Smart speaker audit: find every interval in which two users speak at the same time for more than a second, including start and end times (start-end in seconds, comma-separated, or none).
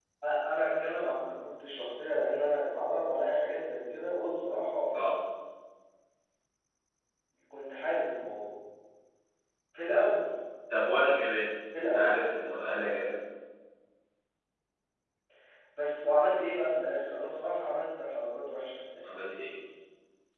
none